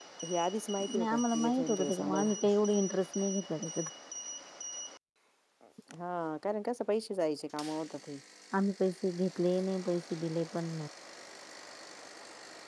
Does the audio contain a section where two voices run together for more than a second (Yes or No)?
Yes